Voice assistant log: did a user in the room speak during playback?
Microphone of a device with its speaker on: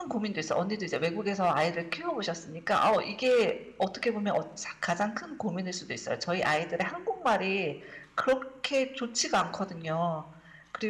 Yes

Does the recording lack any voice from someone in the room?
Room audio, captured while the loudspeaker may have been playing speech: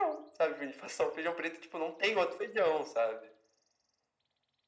Yes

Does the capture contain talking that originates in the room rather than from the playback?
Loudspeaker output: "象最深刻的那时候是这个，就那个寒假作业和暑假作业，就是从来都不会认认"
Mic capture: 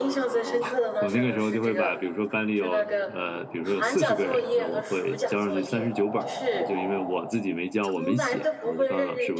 Yes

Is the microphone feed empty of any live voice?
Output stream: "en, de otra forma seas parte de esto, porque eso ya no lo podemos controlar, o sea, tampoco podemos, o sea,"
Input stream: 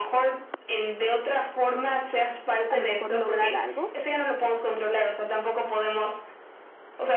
No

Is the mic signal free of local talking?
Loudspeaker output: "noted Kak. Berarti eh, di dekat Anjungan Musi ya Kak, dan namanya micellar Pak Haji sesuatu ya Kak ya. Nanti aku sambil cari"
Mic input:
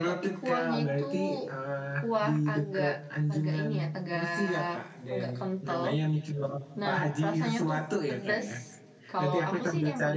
No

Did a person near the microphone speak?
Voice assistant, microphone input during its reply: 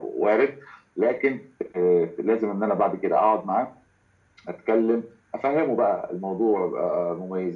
No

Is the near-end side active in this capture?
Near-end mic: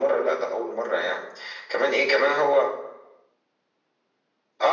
No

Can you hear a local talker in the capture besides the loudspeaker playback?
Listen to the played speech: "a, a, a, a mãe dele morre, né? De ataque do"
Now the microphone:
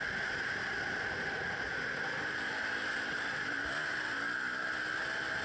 No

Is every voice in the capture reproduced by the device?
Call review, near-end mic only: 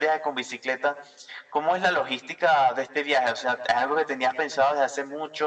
Yes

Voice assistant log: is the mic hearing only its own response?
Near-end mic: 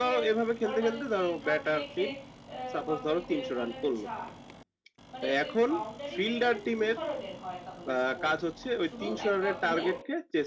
No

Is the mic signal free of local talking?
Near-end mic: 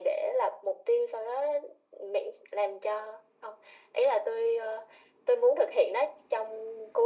Yes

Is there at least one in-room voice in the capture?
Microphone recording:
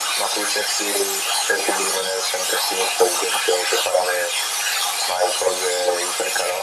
No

